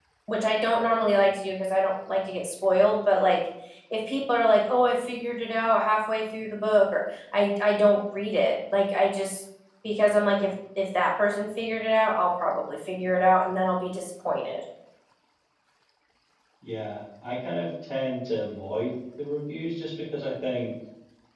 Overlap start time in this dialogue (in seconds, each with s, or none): none